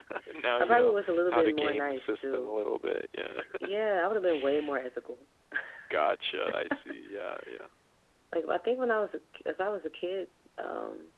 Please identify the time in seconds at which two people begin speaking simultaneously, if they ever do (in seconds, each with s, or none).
0.6 s